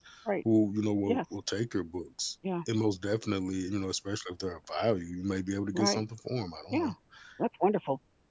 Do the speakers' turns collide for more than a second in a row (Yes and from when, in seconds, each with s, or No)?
No